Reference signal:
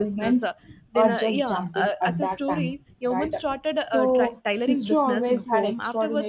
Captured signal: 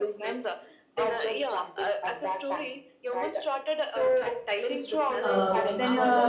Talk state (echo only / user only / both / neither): both